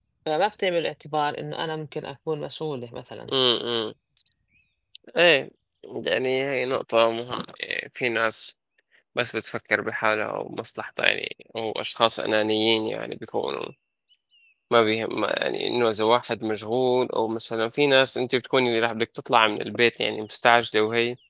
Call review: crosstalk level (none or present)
none